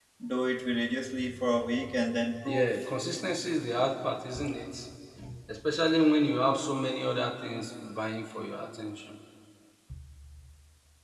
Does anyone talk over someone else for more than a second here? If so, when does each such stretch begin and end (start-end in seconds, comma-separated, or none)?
none